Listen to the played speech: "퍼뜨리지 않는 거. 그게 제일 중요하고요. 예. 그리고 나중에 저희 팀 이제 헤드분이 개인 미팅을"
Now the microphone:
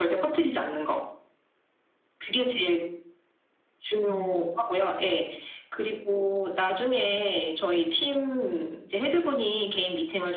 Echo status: present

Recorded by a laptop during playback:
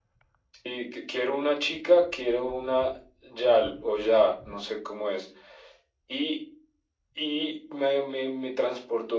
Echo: present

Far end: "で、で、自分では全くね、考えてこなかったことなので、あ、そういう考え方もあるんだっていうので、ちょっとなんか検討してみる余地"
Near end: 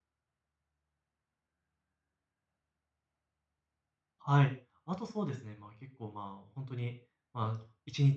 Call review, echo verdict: none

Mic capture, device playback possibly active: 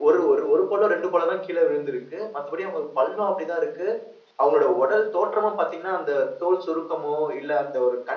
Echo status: none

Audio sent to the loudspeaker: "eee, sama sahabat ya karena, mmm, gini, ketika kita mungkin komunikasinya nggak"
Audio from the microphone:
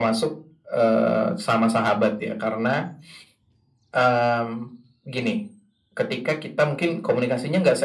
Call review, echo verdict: present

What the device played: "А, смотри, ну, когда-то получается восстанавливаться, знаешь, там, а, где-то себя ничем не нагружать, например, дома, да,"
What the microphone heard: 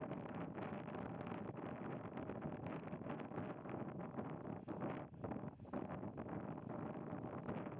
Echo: none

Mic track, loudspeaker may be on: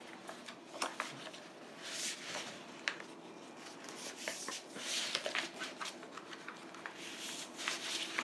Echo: none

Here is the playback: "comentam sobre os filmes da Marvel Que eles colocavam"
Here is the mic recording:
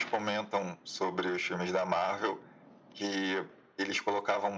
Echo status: present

